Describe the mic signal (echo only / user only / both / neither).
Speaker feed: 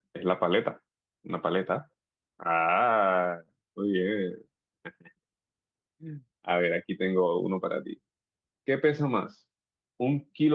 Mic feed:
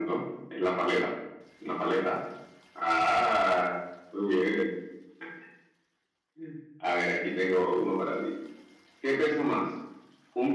echo only